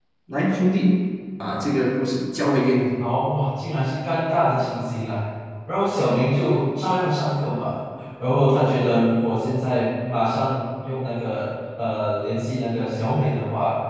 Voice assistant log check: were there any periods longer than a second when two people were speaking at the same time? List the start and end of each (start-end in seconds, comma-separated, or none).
none